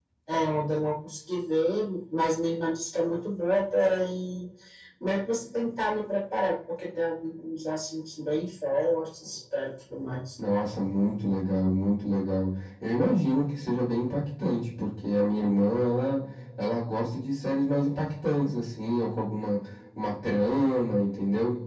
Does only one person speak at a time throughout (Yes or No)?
Yes